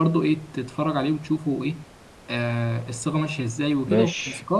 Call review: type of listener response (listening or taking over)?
listening